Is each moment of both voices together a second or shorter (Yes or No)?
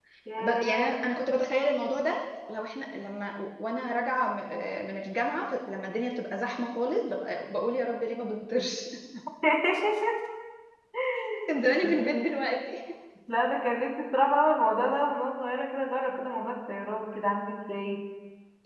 Yes